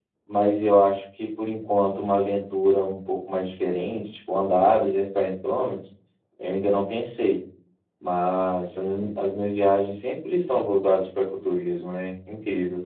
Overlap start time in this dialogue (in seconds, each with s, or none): none